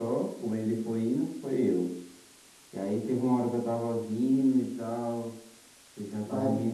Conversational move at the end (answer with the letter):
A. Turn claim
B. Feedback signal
B